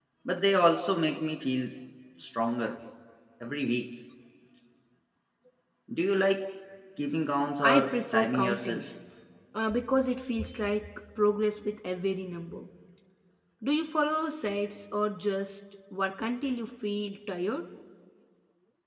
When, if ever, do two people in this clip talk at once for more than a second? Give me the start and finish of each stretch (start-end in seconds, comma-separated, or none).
7.6-8.8